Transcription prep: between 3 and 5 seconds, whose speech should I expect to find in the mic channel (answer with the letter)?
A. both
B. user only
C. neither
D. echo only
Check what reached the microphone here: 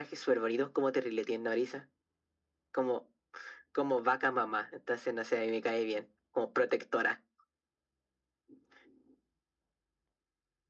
D